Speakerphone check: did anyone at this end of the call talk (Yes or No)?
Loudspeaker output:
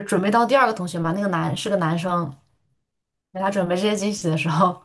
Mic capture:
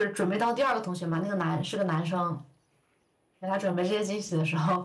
No